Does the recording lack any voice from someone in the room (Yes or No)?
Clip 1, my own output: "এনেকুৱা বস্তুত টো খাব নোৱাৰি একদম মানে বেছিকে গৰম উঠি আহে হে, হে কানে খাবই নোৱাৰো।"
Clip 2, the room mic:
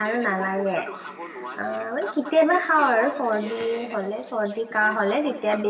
No